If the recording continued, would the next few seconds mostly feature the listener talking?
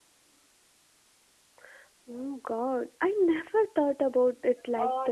Yes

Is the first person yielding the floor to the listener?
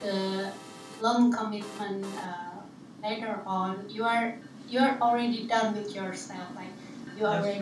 No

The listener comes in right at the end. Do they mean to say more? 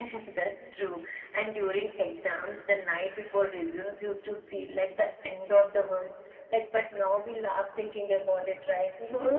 Yes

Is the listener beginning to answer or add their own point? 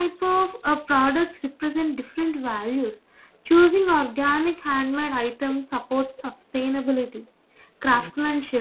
No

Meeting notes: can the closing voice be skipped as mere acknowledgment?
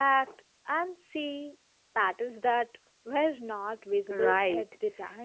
No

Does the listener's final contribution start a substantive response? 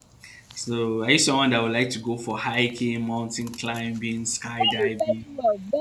Yes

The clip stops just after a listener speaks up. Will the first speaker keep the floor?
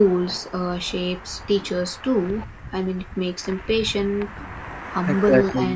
Yes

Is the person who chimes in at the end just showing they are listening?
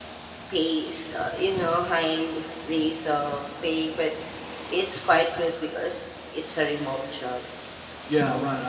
No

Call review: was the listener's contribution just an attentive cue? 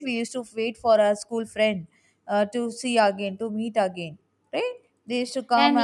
No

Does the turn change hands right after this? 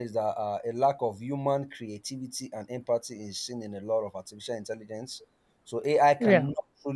No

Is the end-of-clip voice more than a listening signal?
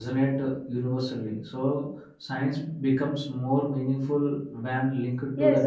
Yes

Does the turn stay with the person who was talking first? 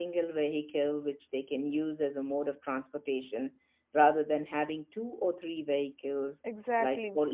Yes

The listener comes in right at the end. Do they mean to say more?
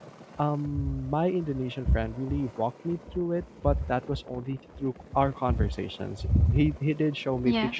No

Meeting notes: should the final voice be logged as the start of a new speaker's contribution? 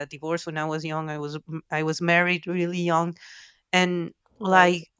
No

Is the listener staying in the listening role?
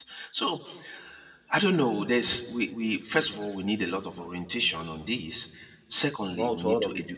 Yes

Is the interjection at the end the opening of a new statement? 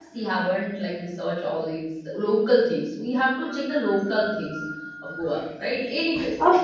Yes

